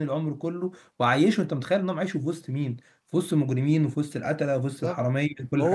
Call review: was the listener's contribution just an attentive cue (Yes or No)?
No